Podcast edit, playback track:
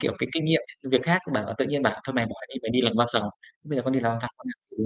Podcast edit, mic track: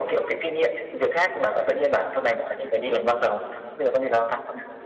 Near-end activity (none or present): none